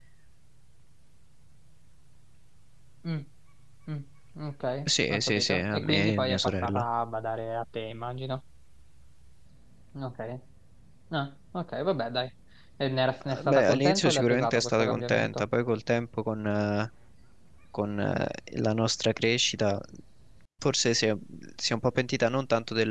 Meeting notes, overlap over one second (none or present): present